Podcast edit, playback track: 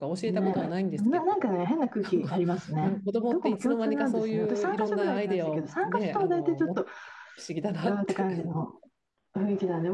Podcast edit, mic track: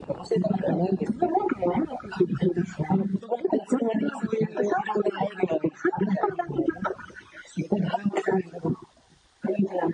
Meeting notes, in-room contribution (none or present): none